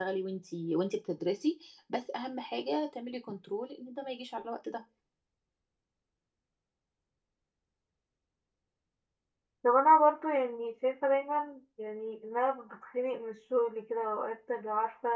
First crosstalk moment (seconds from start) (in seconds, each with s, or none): none